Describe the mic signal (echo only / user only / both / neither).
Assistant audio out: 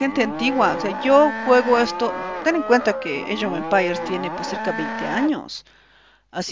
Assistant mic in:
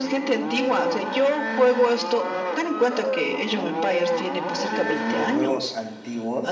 both